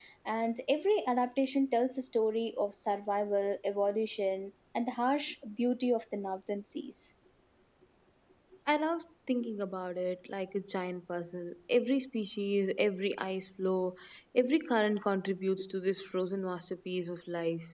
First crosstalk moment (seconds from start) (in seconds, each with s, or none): none